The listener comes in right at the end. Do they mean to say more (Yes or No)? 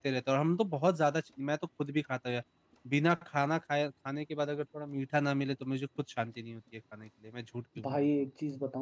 Yes